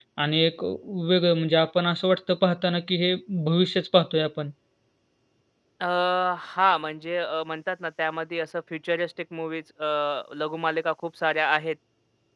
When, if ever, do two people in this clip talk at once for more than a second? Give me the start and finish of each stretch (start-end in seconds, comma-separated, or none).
none